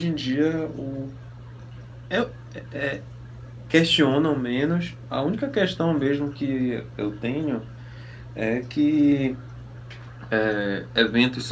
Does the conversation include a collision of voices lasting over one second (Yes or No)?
No